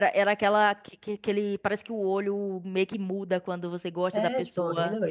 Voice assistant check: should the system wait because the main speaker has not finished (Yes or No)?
No